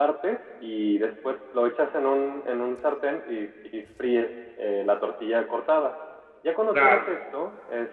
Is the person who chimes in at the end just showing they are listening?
Yes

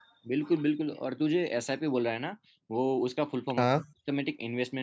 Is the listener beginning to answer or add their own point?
No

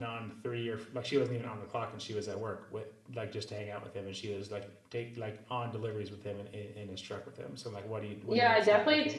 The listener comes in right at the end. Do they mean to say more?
Yes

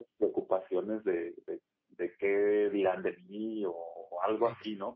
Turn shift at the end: No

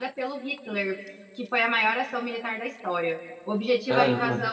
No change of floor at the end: Yes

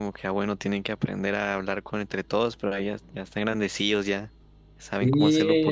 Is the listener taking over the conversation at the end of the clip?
Yes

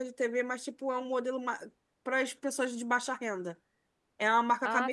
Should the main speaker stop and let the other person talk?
No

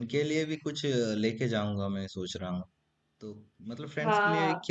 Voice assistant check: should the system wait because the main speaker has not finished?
Yes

